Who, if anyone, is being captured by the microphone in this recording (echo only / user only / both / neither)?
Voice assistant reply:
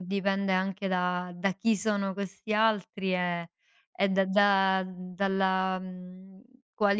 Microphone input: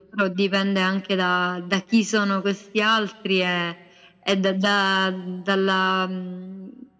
echo only